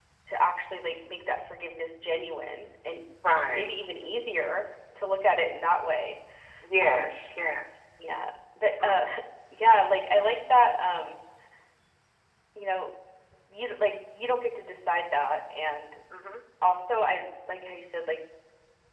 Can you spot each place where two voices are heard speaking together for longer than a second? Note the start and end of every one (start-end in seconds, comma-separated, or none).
none